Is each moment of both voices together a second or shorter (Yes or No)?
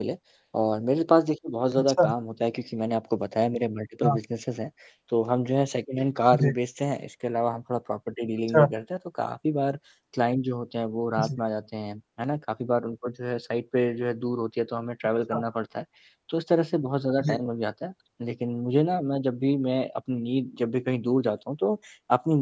Yes